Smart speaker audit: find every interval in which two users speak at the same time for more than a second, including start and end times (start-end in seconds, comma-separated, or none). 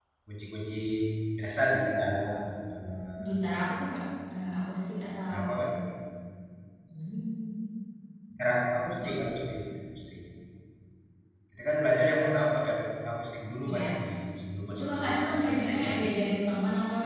14.7-15.9